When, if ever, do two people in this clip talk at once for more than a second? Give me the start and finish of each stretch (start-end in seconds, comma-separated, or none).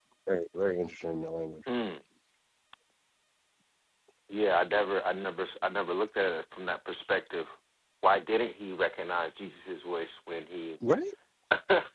none